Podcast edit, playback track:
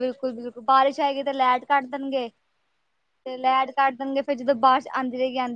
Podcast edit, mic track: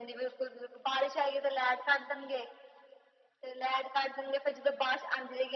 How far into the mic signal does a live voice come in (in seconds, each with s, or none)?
none